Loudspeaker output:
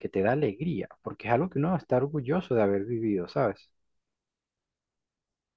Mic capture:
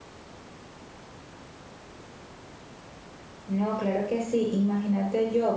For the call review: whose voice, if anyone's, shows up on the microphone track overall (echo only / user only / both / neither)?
user only